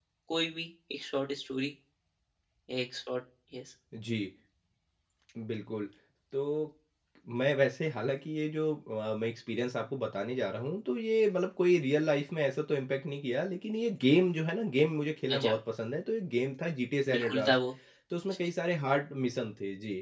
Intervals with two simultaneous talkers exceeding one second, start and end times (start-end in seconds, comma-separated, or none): none